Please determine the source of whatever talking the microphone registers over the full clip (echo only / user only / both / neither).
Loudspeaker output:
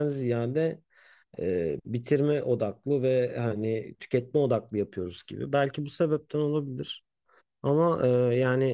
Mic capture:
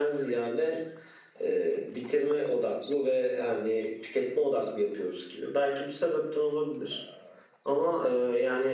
echo only